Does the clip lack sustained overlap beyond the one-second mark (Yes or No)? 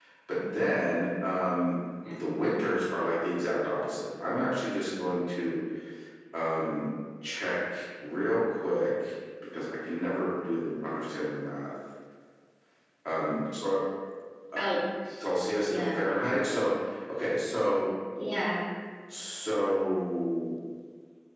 Yes